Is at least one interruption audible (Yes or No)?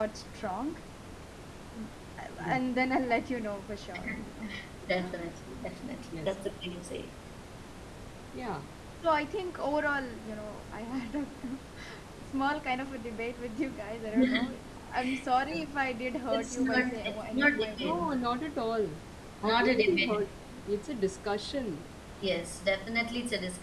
Yes